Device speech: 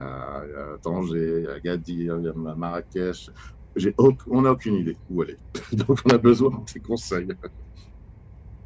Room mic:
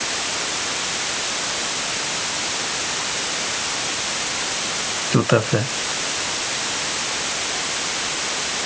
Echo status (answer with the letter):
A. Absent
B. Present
A